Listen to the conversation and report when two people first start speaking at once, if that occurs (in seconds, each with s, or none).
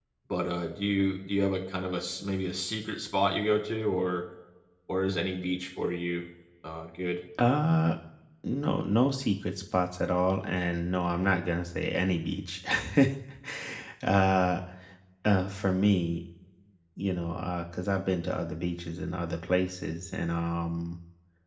none